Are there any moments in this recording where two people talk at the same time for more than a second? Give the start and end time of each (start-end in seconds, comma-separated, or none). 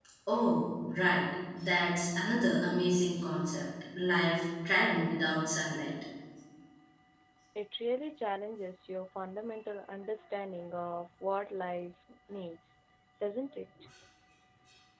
none